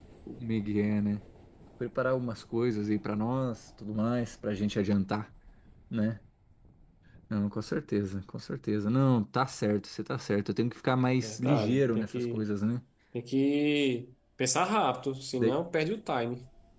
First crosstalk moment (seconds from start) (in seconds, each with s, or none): 11.2 s